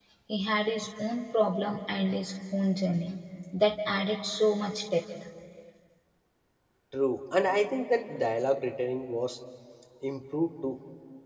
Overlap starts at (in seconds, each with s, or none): none